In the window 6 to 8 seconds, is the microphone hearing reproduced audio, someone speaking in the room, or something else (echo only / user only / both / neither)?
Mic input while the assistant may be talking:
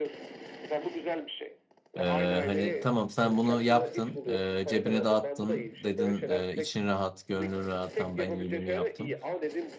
both